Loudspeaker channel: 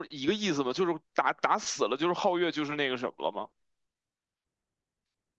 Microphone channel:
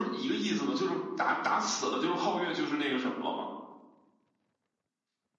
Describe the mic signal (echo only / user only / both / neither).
echo only